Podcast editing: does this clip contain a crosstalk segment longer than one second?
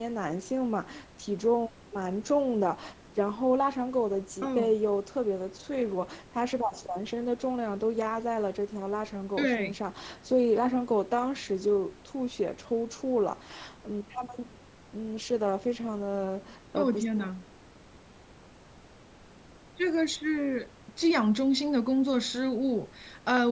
No

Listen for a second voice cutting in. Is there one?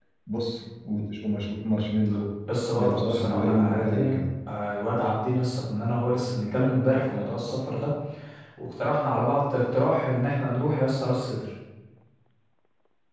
Yes, from 2.8 s

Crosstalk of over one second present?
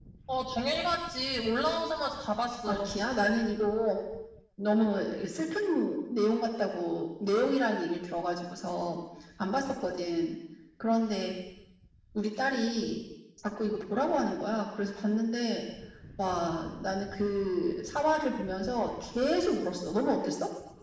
No

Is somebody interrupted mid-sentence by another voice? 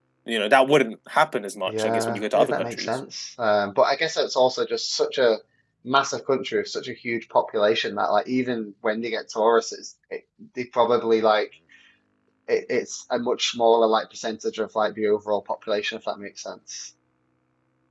Yes, from 1.7 s

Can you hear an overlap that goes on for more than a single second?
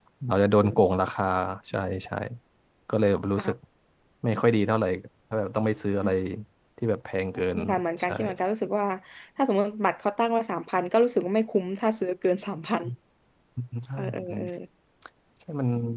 No

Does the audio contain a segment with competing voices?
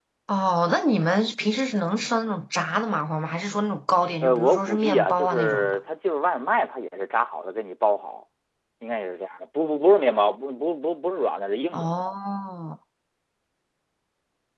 Yes, from 4.2 s

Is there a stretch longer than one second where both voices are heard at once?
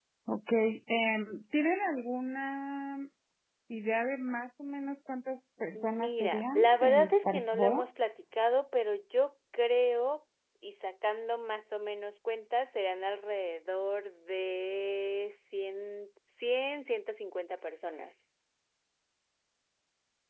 Yes, from 5.7 s

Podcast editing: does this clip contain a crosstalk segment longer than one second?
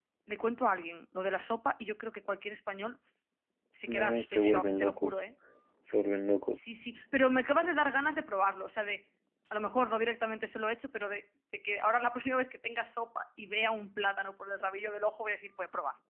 Yes, from 3.9 s

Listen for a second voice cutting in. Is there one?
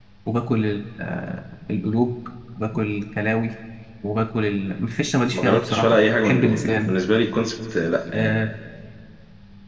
Yes, from 5.3 s

